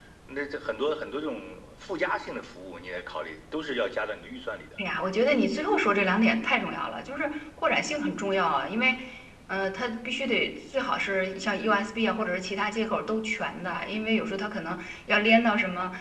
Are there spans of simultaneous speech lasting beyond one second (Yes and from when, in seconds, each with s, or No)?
No